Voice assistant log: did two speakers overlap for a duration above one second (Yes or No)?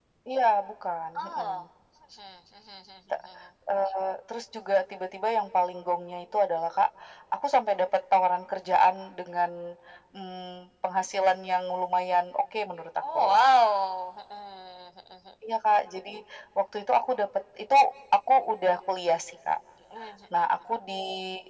No